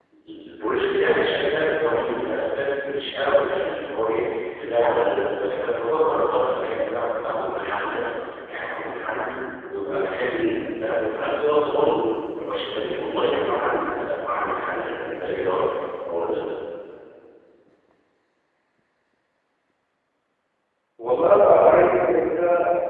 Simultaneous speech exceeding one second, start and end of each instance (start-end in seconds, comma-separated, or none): none